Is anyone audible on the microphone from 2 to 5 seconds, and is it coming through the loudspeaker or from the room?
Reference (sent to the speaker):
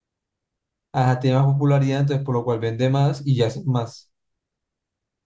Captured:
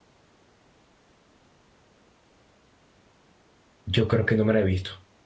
user only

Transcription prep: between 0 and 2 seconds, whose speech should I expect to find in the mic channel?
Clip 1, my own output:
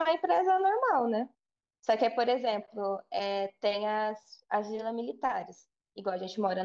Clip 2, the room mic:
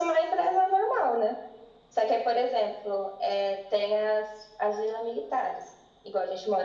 echo only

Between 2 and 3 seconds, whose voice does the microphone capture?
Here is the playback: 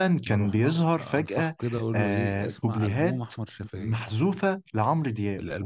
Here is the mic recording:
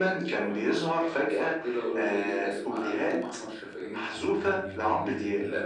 echo only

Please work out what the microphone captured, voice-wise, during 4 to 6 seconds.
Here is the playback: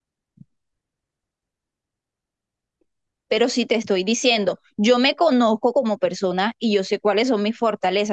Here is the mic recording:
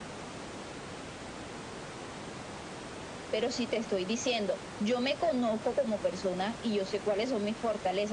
echo only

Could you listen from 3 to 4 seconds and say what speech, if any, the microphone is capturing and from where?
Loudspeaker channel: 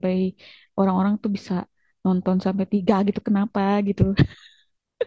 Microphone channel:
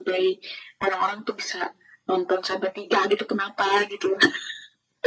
echo only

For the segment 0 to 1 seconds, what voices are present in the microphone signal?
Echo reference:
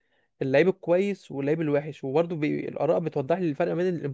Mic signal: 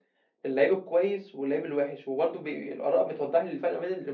echo only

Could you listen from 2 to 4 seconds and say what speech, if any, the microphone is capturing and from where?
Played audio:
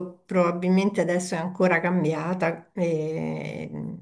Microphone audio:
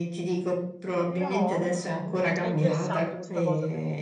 both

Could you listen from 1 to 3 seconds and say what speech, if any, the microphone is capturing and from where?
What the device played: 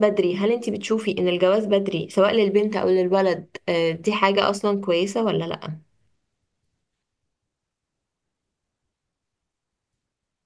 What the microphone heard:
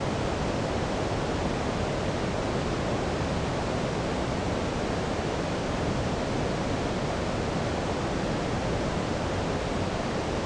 neither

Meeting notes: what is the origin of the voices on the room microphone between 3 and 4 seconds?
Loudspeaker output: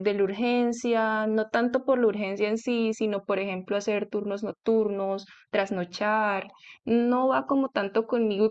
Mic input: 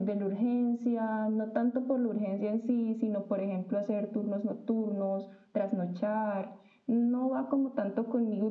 echo only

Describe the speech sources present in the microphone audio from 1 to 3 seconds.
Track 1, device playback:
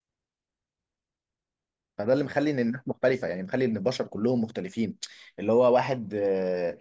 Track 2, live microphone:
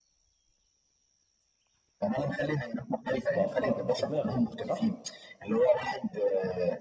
echo only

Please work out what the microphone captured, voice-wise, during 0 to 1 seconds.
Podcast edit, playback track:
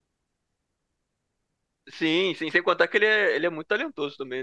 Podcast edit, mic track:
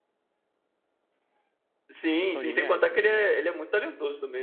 neither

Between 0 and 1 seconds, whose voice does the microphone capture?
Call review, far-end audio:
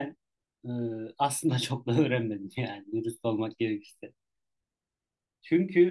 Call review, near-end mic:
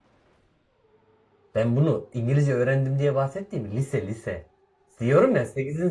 neither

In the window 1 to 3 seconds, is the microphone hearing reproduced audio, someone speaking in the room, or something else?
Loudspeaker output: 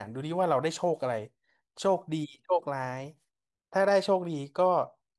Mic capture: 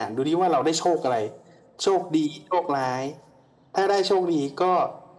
echo only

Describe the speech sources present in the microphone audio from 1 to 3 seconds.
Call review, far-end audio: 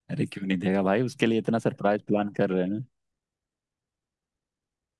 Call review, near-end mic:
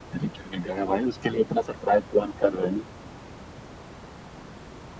echo only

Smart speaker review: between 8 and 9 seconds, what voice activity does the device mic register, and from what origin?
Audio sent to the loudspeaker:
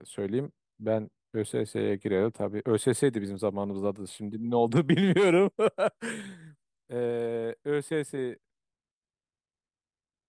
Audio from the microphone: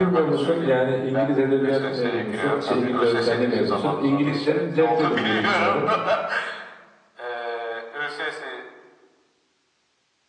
echo only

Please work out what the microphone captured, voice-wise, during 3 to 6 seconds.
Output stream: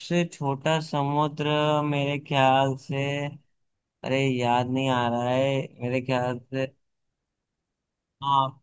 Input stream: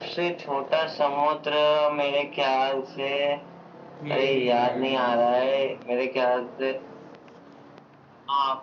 both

